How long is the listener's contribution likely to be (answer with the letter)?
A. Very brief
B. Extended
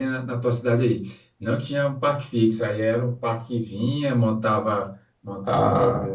A